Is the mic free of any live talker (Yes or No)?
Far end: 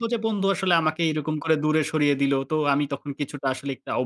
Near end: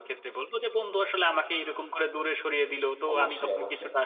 No